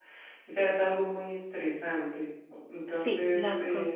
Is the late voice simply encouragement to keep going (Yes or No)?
No